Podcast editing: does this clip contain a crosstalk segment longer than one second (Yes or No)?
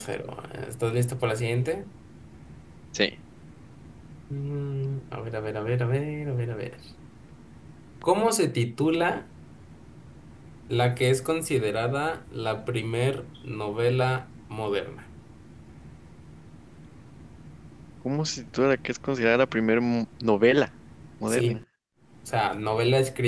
No